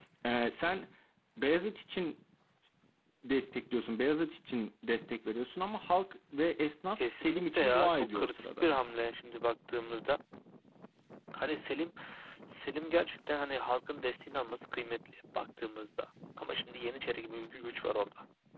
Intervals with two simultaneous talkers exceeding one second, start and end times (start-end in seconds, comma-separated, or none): 6.9-8.7